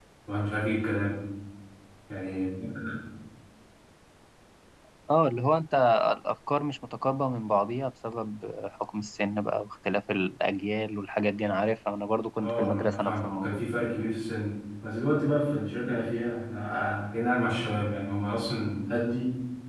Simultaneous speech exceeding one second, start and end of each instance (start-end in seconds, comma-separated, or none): 12.4-13.6